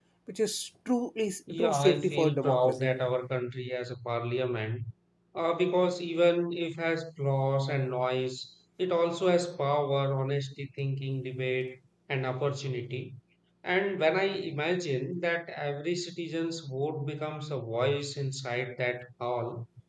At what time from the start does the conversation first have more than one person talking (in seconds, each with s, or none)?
1.5 s